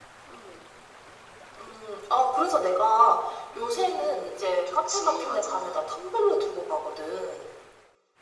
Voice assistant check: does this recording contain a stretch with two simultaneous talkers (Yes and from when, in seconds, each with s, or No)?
Yes, from 3.5 s